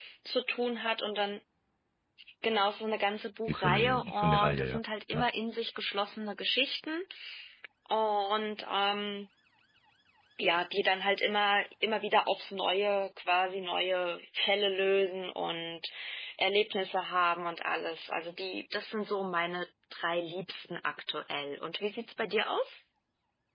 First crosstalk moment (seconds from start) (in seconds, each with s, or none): 3.5 s